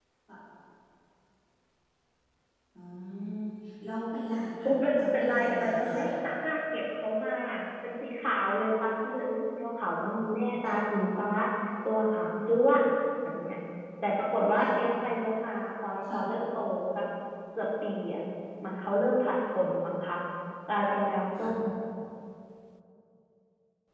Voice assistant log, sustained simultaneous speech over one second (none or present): present